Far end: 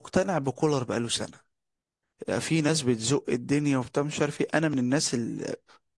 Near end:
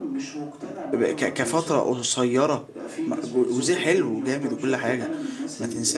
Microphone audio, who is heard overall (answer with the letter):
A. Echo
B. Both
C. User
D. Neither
B